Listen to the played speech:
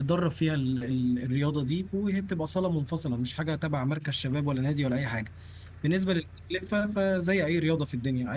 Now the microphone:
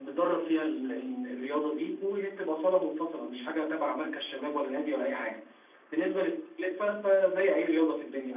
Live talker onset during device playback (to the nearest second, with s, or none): none